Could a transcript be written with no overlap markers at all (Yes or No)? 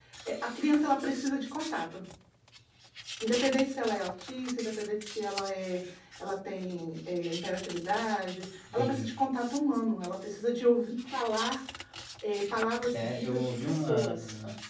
No